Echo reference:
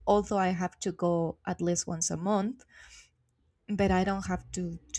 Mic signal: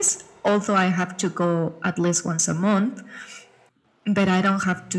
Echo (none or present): present